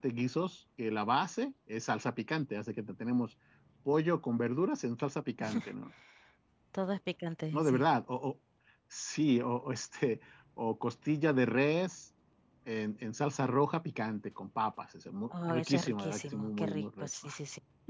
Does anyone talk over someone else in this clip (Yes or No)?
Yes